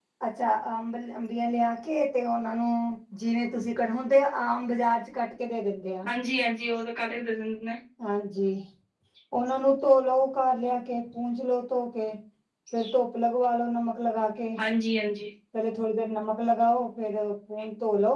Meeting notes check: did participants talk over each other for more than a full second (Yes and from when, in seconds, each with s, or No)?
No